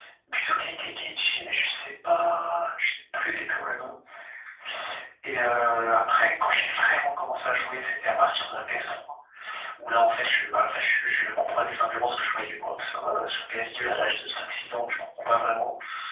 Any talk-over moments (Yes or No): No